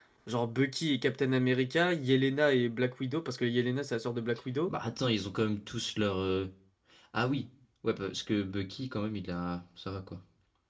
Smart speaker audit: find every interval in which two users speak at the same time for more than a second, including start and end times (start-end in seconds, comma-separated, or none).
none